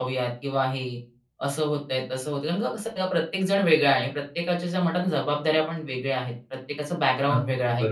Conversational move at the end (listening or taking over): listening